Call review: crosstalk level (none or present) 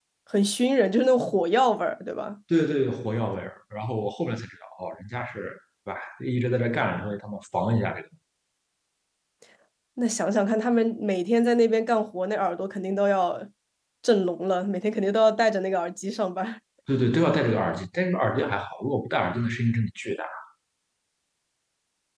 none